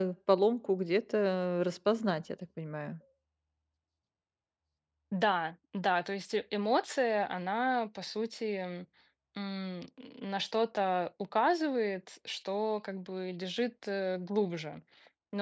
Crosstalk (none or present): none